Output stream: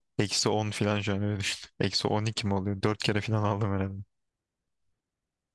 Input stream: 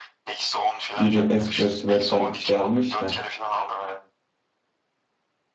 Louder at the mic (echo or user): user